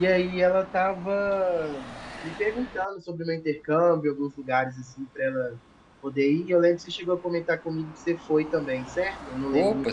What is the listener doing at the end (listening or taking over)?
taking over